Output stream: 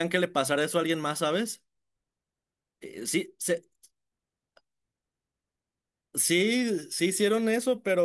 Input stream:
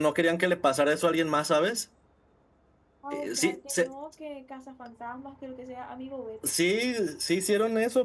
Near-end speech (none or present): present